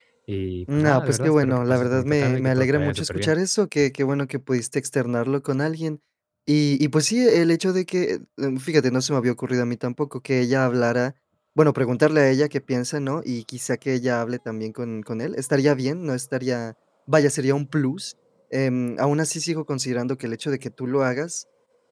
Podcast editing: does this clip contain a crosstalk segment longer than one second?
Yes, from 0.7 s

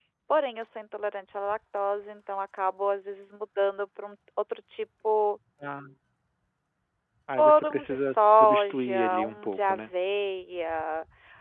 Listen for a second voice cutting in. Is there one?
Yes, from 7.4 s

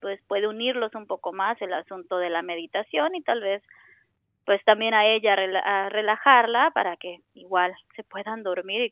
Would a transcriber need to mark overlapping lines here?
No

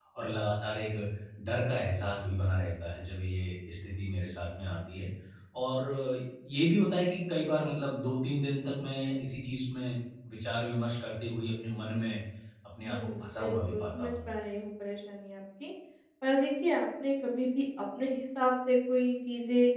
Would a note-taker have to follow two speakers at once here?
Yes, from 12.9 s

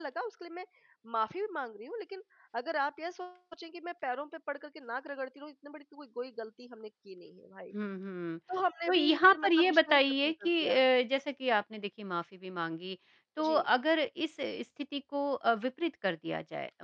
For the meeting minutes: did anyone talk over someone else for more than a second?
Yes, from 8.9 s

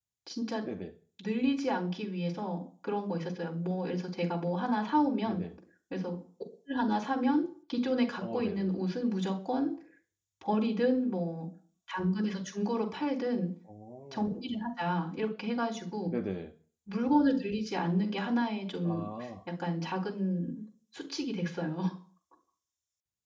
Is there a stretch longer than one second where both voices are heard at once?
No

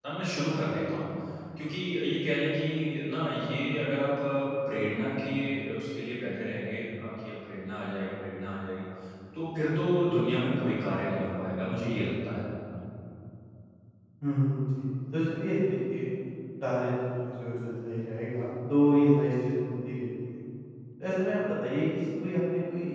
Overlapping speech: No

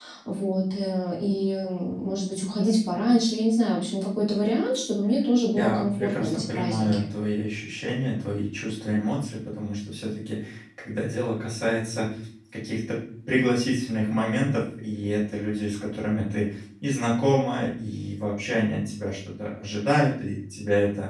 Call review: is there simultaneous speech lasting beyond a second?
Yes, from 5.6 s

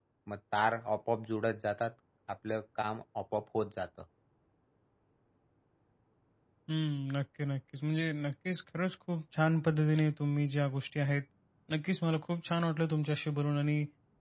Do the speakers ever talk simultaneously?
No

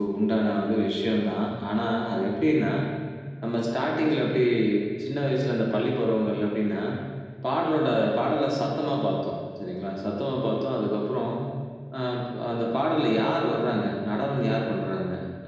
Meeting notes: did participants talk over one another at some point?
No

